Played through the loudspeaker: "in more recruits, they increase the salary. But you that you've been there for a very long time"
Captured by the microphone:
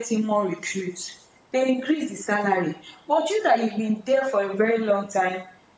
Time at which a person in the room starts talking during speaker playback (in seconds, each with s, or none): none